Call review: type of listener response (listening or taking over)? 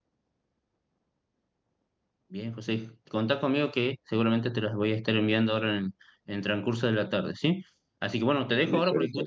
listening